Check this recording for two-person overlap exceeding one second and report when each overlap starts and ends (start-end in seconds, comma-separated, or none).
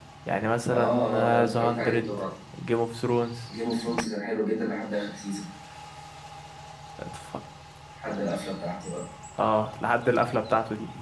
0.7-2.1